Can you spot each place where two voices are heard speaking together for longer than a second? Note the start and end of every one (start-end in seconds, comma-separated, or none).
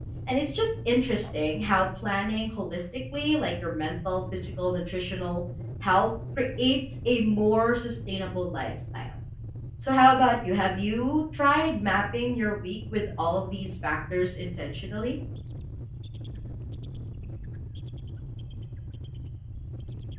none